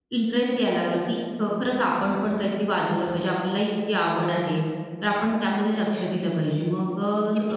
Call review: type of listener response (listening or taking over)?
taking over